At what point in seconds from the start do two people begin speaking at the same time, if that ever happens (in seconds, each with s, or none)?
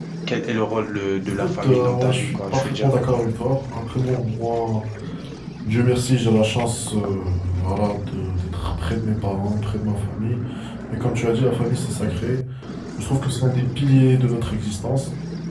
1.3 s